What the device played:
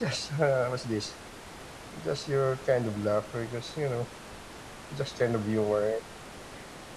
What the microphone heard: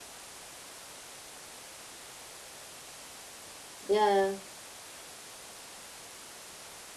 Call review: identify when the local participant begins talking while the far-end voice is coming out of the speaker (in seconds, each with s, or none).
3.9 s